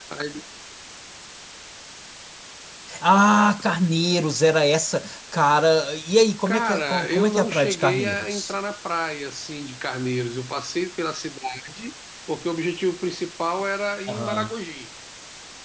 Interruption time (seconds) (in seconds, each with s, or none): 6.5 s